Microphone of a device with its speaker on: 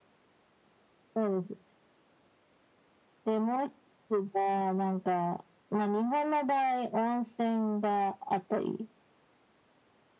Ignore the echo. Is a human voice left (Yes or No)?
No